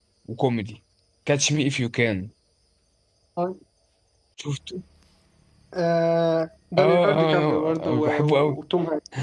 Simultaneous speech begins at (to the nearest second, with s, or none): 7 s